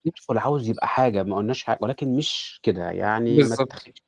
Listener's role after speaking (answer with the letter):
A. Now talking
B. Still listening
A